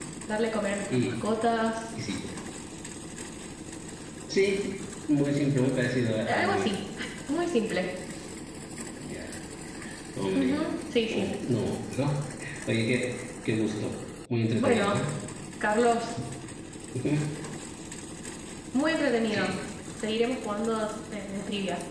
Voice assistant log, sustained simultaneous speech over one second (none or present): none